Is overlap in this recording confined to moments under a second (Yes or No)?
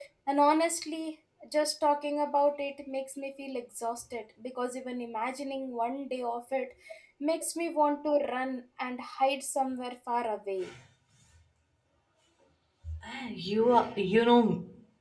Yes